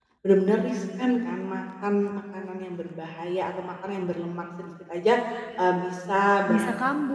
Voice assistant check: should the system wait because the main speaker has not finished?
Yes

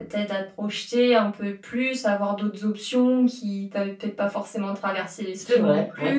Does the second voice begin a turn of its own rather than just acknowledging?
Yes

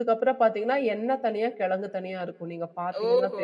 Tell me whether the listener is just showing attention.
No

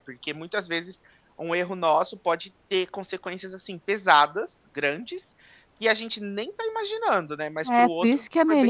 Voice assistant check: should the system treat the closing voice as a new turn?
Yes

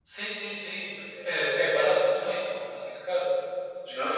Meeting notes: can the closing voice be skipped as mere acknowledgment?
Yes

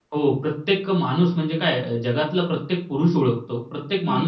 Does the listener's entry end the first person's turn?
Yes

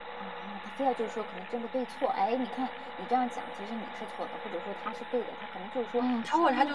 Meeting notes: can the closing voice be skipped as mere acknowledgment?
No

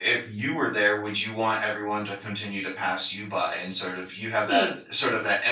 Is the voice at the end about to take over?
No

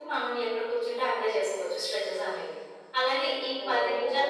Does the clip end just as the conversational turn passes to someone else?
No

